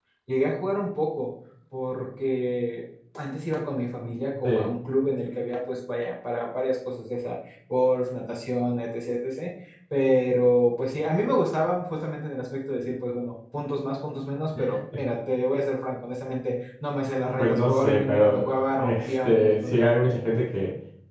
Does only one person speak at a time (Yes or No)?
No